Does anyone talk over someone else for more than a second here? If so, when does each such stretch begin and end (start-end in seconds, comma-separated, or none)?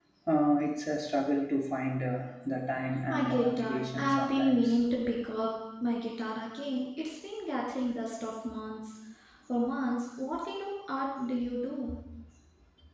3.1-4.8